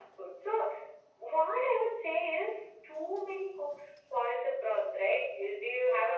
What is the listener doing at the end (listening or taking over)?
listening